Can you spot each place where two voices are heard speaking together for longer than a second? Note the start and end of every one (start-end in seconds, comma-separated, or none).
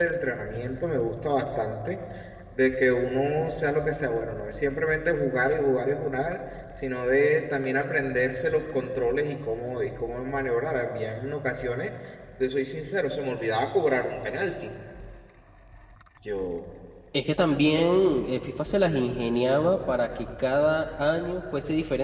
none